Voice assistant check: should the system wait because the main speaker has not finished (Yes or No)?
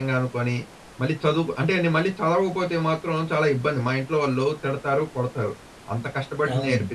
Yes